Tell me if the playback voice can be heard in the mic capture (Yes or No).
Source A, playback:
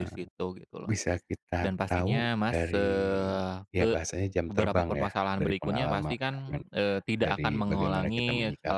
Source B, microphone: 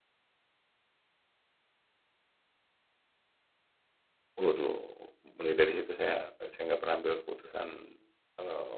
No